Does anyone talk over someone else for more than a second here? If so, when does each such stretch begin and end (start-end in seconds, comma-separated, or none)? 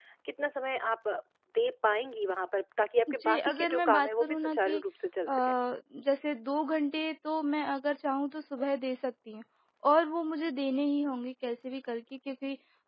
3.1-4.8